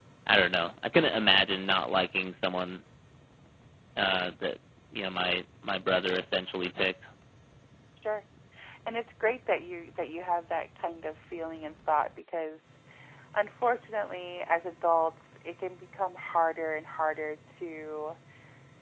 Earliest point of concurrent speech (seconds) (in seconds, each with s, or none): none